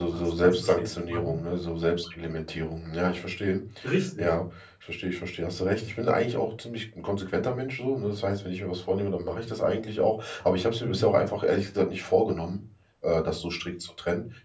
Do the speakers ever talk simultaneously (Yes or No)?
Yes